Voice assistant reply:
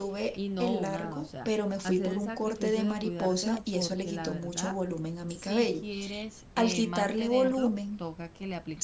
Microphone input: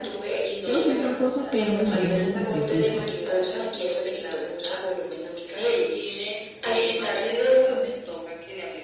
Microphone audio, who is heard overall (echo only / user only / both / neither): both